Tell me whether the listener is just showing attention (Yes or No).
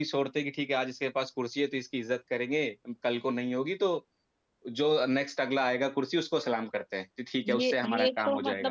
No